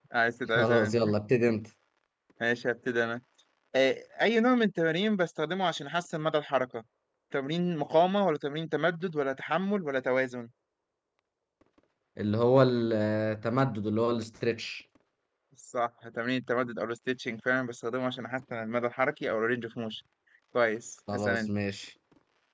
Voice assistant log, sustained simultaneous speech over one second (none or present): none